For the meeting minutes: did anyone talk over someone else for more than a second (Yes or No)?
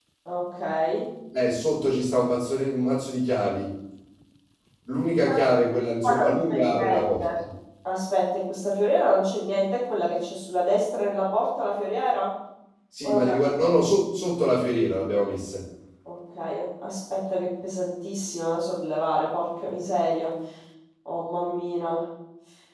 Yes